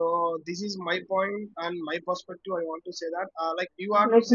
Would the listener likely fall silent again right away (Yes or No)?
No